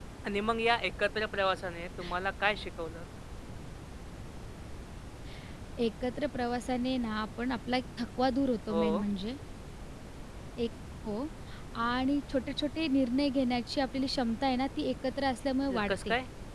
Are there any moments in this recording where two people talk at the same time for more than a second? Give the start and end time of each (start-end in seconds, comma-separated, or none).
none